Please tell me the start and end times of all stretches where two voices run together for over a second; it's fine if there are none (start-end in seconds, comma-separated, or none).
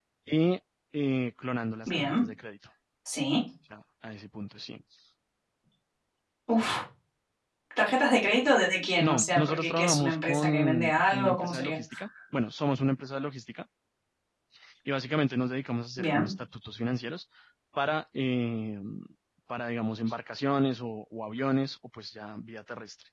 9.0-11.8